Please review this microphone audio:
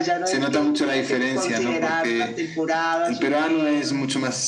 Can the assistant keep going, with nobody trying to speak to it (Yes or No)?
Yes